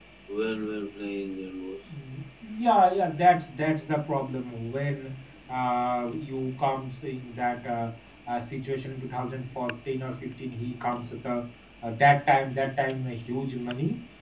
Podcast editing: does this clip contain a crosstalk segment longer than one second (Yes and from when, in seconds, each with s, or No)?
No